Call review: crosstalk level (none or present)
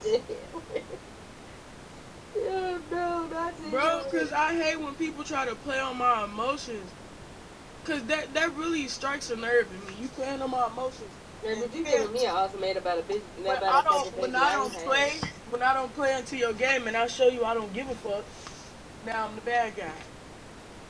present